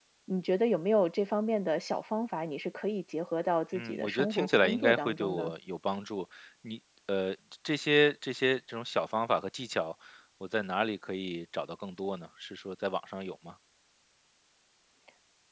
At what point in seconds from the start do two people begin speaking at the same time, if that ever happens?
3.7 s

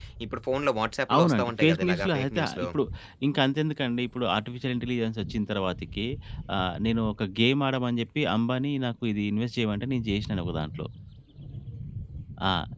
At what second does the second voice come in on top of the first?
1.1 s

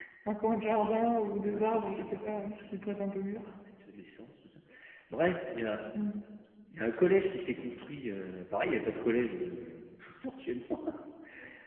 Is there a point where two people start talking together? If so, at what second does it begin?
1.4 s

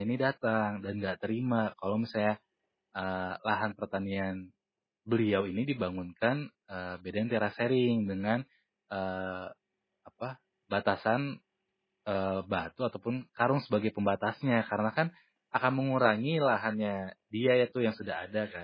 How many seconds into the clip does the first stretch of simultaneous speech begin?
none

